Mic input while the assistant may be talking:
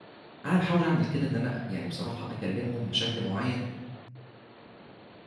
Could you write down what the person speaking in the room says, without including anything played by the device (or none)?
أنا باحاول أعمل كده، إن أنا يعني بصراحة أكلمهم بشكل معين،